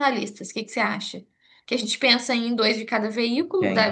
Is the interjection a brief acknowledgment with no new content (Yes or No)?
Yes